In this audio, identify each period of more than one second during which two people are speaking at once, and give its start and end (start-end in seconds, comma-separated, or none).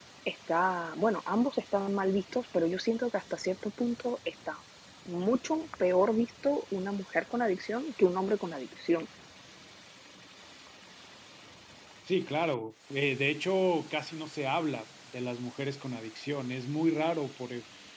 none